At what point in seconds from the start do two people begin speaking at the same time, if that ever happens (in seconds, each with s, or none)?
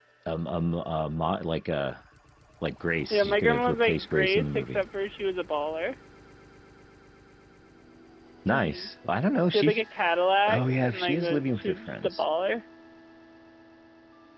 3.1 s